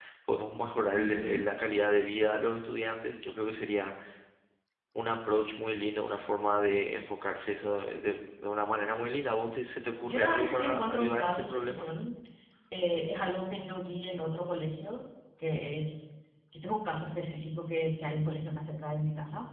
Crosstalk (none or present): present